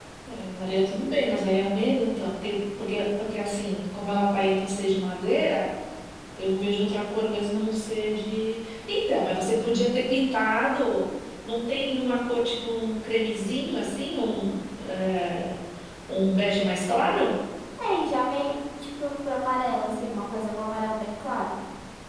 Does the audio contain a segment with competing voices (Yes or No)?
No